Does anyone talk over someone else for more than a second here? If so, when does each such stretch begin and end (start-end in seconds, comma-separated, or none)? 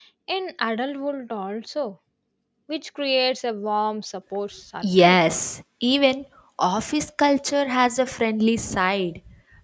none